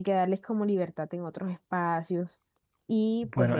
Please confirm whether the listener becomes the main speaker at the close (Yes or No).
Yes